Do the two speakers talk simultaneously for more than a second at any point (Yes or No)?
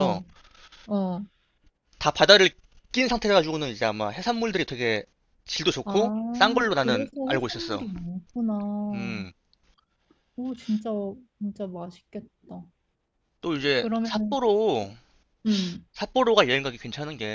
Yes